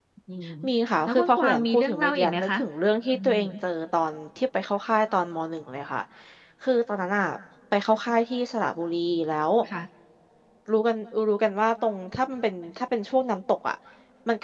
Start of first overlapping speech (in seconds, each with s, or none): 1.1 s